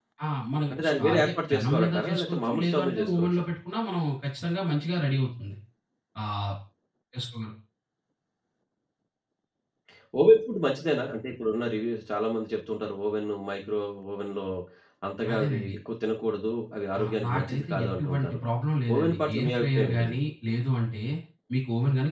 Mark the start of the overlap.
1 s

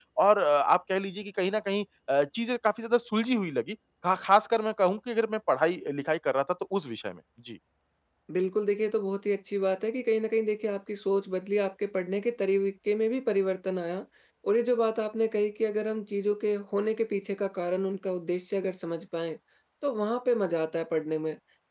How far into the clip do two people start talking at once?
none

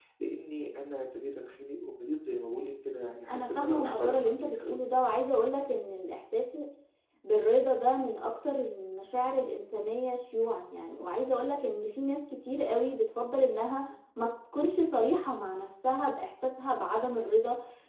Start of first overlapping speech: 3 s

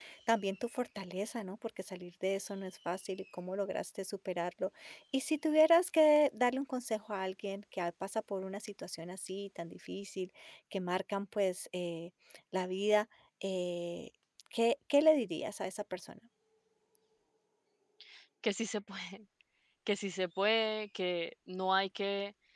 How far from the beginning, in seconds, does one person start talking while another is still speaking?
none

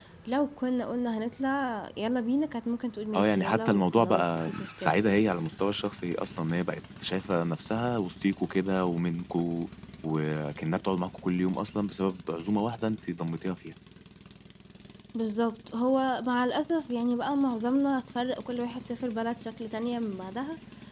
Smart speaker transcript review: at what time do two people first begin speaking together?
3 s

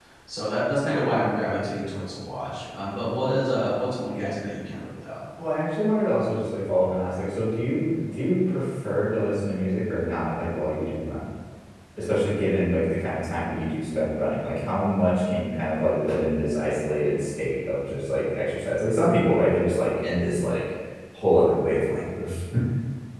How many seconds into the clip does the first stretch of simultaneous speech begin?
none

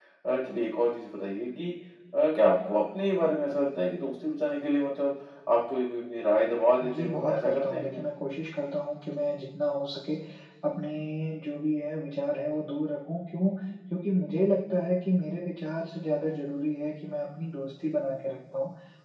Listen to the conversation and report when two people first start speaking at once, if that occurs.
7 s

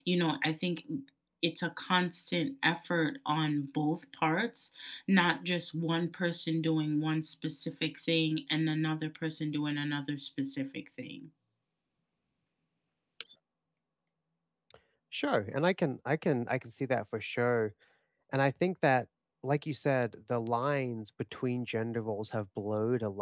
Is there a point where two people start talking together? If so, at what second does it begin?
none

